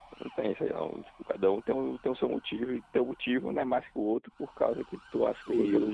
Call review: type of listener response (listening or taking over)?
taking over